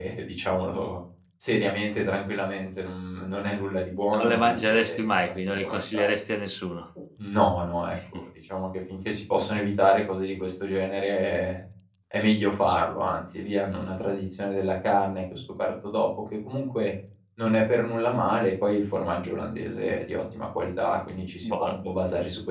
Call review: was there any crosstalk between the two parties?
Yes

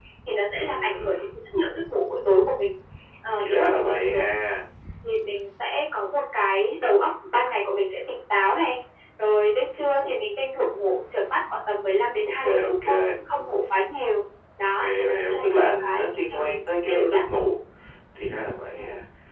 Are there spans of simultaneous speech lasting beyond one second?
Yes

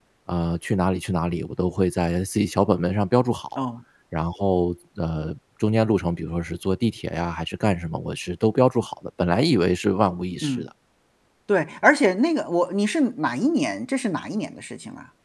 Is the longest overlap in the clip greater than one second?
No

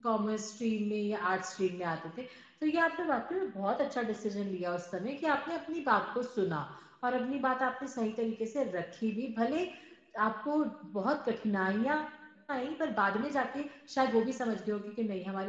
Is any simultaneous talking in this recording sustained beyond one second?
No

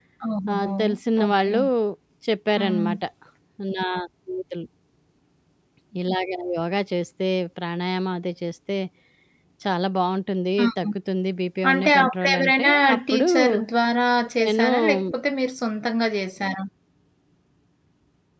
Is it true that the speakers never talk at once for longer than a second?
No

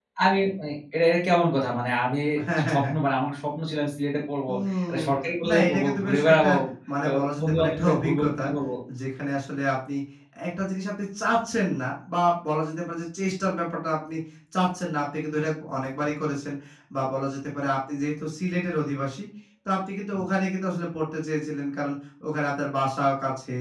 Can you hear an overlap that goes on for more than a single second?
Yes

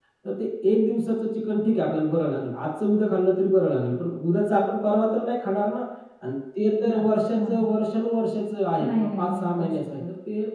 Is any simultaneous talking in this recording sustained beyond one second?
Yes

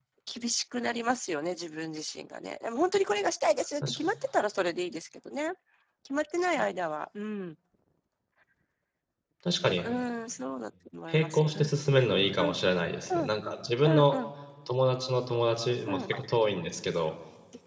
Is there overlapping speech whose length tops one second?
No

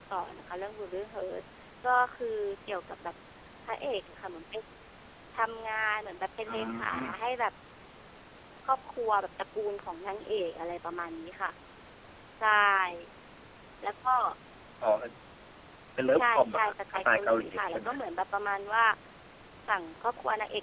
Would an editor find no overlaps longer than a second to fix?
No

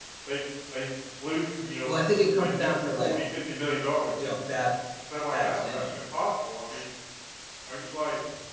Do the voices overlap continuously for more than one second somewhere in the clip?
Yes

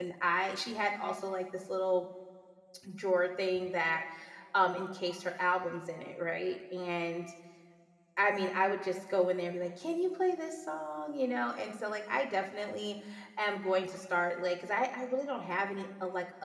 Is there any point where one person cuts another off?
No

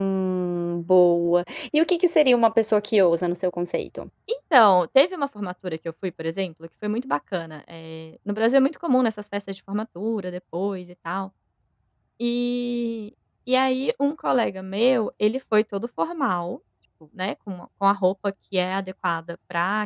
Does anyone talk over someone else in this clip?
No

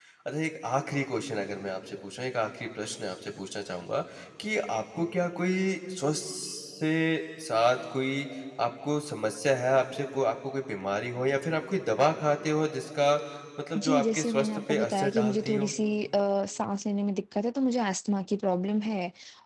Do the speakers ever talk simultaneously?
Yes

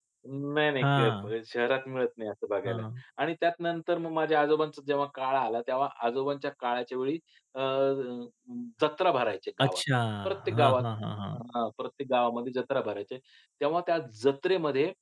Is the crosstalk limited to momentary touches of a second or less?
Yes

